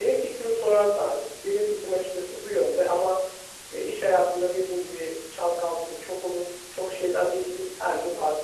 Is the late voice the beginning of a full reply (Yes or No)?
Yes